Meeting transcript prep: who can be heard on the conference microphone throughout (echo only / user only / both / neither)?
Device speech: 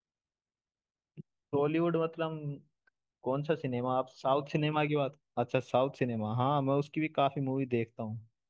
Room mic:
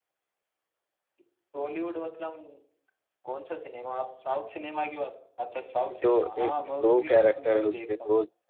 both